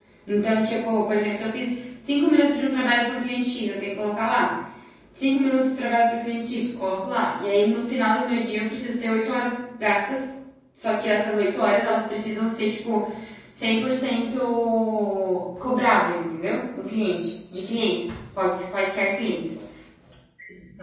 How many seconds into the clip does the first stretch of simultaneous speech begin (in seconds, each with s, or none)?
none